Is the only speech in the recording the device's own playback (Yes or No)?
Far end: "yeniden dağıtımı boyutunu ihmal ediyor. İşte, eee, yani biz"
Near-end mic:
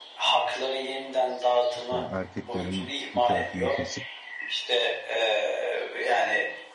No